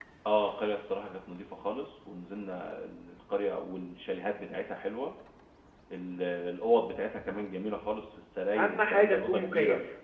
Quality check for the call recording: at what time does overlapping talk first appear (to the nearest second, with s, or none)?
9 s